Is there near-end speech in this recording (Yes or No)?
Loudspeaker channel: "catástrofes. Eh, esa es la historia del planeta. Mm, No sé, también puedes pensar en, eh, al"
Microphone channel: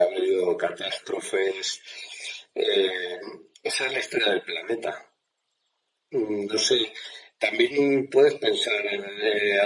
No